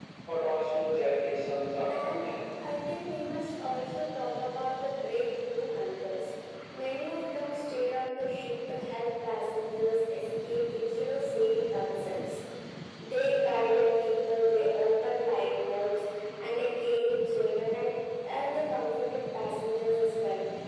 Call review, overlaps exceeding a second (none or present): none